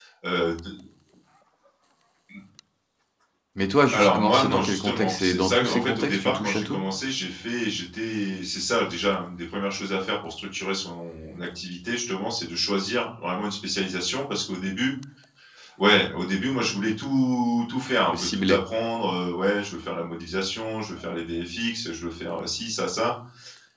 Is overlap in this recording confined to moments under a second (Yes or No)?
No